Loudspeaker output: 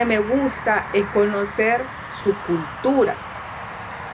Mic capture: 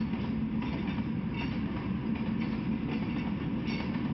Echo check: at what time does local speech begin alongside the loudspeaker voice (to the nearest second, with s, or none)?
none